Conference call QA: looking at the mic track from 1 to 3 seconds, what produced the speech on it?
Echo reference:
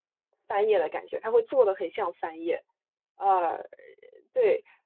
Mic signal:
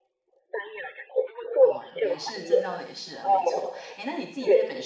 both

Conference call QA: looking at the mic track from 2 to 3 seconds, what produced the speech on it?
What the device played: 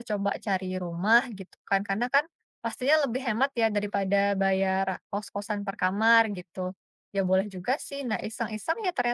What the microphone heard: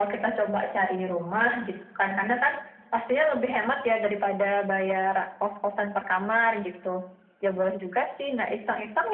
echo only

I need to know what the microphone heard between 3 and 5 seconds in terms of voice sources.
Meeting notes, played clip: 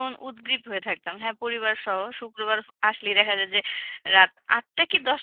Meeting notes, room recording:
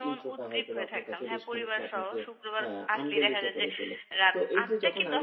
both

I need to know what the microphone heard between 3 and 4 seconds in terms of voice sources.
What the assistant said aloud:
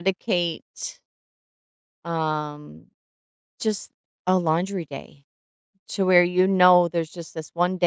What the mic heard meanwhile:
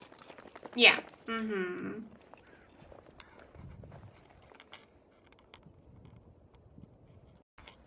neither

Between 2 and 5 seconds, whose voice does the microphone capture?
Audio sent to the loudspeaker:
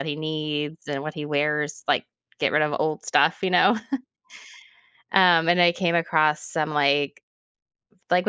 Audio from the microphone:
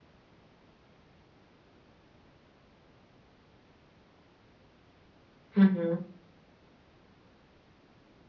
neither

